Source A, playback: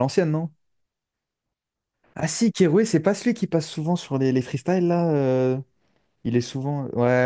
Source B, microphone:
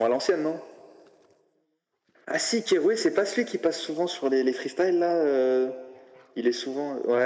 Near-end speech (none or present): none